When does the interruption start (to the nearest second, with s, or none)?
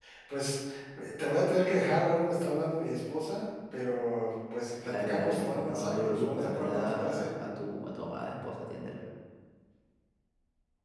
5 s